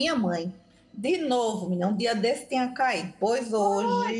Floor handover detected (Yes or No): Yes